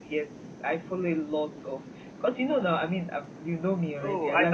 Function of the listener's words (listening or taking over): taking over